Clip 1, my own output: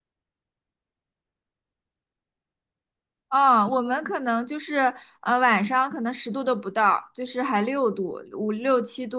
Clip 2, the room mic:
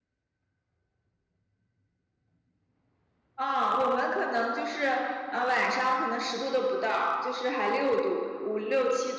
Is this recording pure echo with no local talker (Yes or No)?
Yes